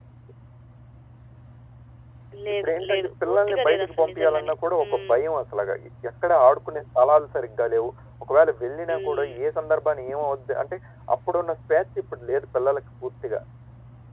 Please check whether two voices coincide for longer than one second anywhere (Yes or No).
Yes